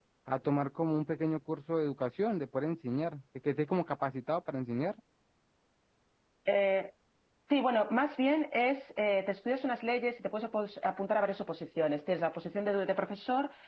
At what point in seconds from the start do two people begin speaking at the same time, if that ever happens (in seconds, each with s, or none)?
none